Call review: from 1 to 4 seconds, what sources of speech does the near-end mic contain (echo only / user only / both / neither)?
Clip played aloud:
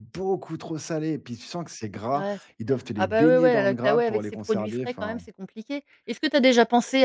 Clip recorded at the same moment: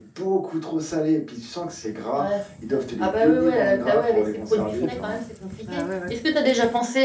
echo only